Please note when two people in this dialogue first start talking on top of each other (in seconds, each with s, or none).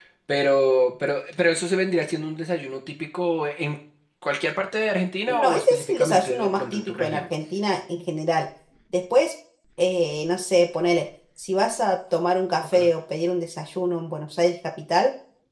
5.3 s